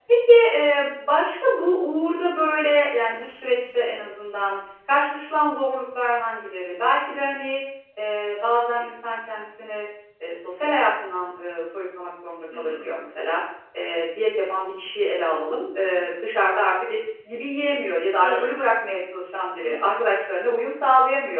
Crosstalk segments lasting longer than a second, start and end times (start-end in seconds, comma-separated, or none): none